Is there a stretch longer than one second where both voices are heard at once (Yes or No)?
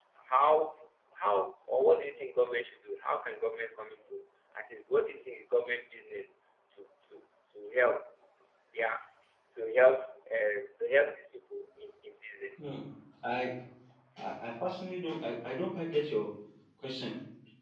No